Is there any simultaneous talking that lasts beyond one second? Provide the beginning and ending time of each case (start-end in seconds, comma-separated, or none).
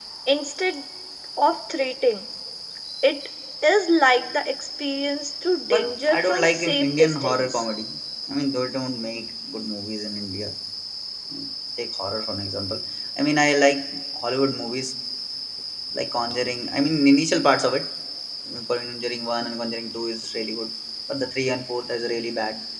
5.7-7.6